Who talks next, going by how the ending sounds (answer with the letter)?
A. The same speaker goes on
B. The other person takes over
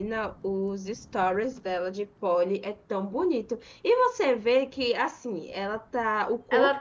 B